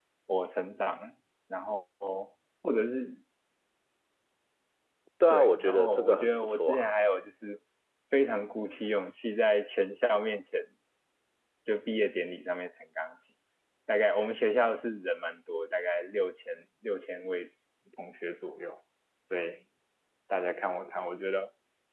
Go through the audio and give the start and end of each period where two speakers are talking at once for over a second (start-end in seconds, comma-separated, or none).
5.3-6.9